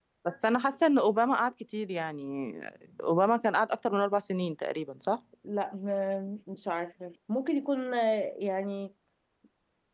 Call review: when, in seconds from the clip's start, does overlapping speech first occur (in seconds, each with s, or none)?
none